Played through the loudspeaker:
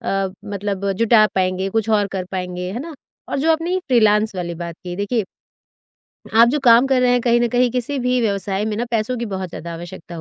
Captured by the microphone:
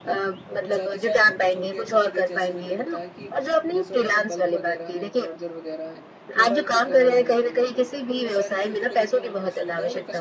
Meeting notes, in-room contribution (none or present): present